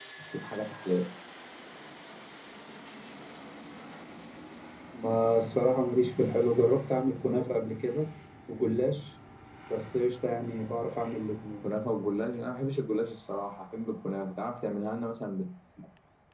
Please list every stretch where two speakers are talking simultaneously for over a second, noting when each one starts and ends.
none

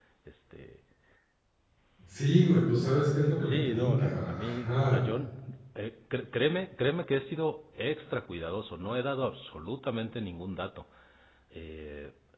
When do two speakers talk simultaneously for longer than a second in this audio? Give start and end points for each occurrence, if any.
3.4-5.0

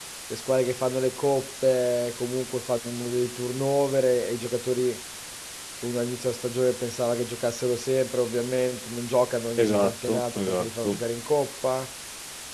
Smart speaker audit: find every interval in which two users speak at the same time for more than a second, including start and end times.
9.6-11.0

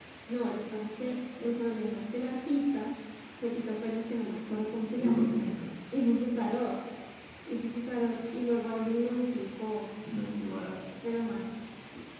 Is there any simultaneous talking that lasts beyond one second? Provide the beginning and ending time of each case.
none

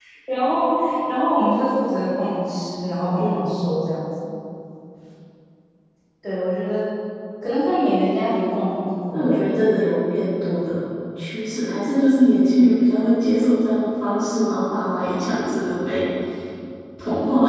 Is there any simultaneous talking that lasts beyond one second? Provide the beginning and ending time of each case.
none

